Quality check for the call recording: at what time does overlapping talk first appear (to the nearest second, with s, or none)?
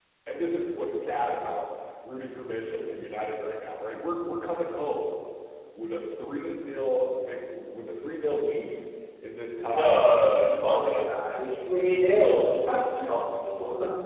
10 s